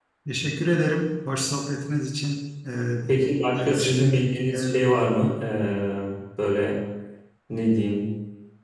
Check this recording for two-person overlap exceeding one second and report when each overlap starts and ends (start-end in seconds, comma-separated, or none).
3.5-5.2